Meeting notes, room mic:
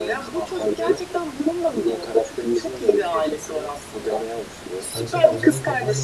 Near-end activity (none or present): present